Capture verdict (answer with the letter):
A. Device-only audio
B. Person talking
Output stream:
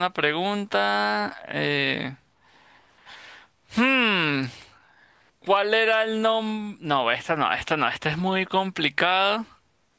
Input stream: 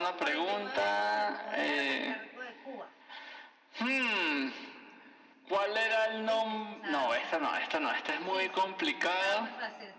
B